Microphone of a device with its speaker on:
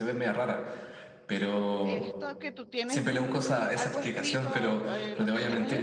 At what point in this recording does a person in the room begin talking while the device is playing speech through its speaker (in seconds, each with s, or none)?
1.8 s